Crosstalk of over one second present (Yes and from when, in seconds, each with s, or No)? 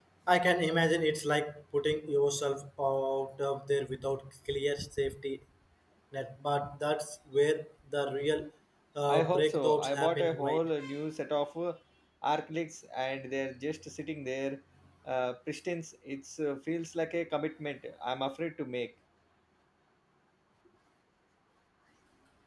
Yes, from 9.1 s